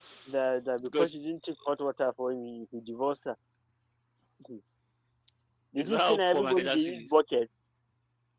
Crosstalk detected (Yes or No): Yes